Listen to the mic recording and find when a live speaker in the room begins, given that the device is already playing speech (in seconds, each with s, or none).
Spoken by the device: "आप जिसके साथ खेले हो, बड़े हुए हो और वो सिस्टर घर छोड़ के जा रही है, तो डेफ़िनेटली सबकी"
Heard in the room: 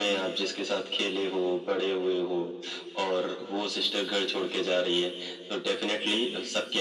none